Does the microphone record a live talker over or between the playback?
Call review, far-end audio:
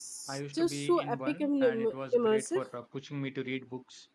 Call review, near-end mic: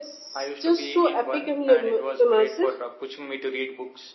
No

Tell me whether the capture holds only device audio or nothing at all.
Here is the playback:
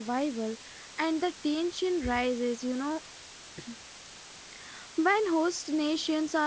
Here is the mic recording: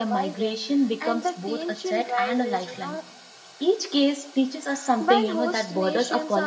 No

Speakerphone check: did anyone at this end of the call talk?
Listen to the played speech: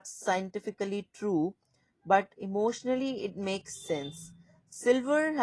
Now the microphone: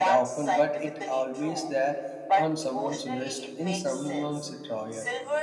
Yes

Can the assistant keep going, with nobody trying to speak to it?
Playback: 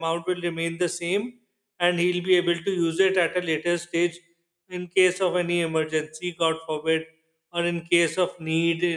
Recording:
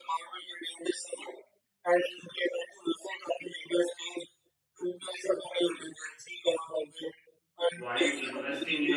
No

